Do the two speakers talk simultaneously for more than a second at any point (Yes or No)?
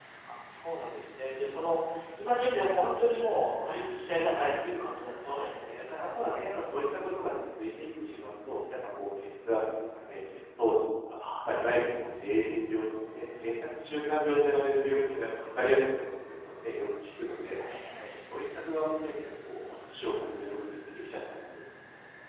No